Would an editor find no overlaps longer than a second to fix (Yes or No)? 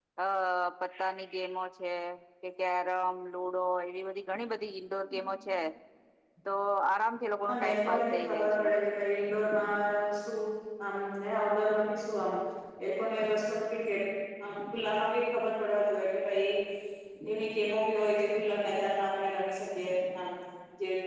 No